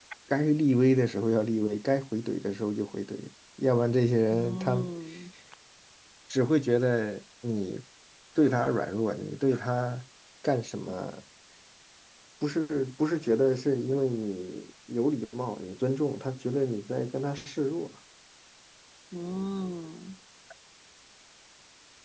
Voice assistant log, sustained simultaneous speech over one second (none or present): none